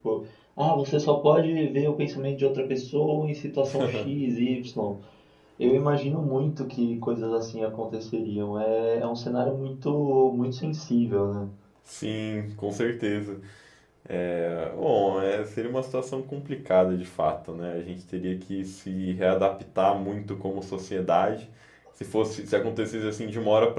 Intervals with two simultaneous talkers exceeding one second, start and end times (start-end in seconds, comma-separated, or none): none